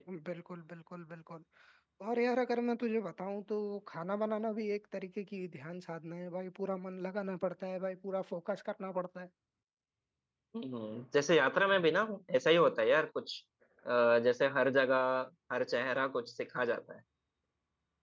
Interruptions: none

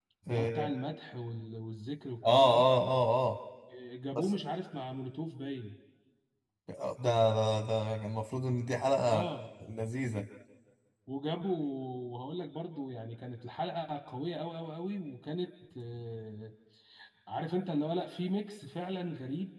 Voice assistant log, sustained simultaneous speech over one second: none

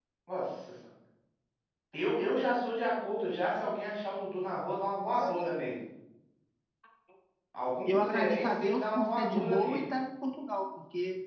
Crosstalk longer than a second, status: present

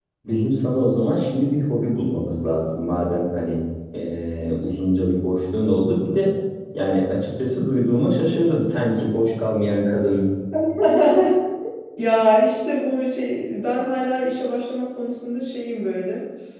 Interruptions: none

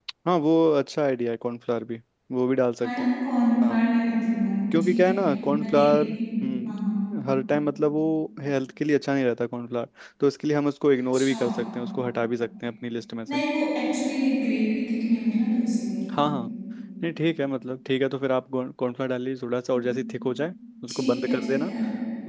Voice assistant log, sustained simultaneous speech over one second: present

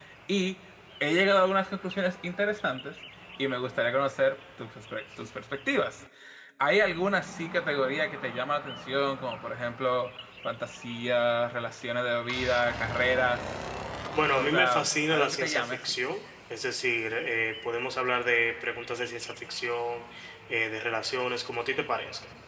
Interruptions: present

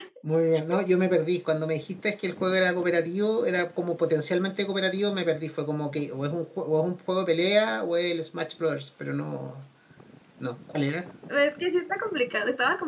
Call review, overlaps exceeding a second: none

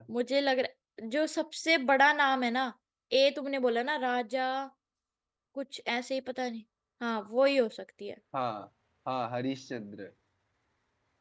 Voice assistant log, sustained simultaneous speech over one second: none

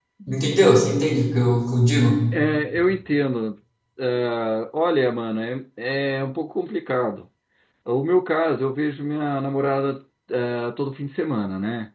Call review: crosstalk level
none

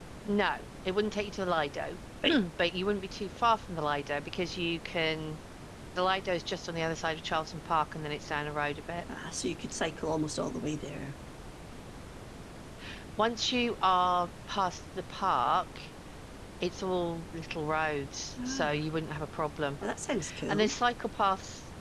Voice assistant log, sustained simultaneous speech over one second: none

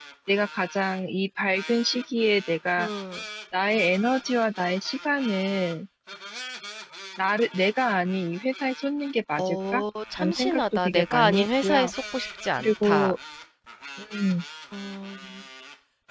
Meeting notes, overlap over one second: present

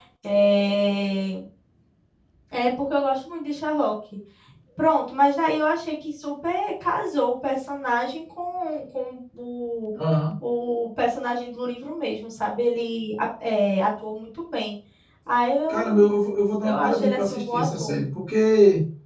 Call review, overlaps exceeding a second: present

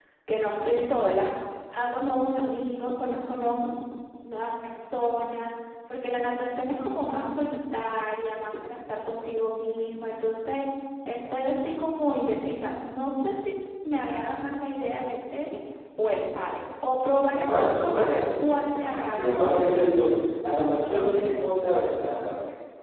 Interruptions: present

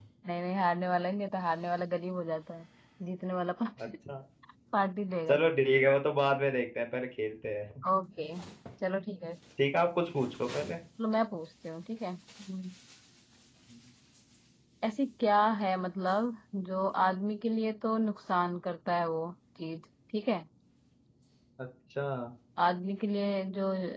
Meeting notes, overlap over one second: none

